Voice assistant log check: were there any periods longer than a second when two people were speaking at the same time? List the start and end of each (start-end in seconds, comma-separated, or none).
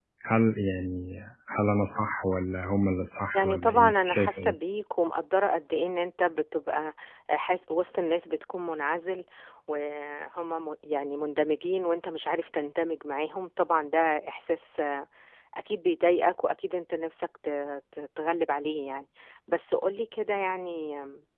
3.3-4.5